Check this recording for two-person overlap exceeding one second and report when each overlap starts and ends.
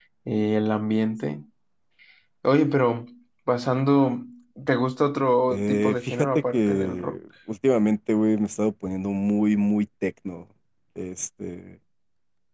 5.5-7.2

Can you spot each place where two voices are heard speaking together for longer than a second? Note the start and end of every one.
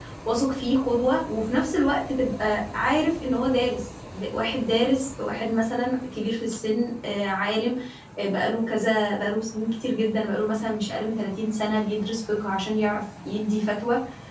none

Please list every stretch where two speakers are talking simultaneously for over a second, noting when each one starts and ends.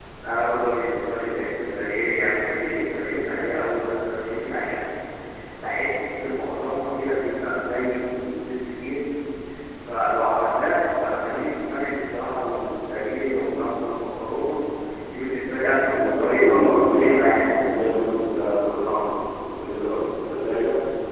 15.9-17.4

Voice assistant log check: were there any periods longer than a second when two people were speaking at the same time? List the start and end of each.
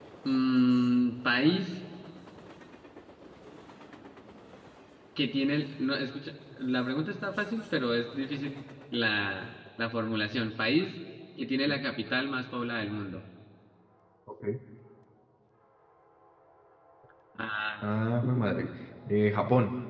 none

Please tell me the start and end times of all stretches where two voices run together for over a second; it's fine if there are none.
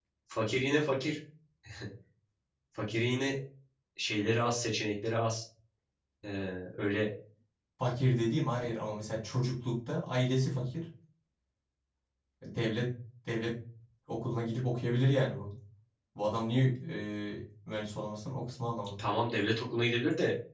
none

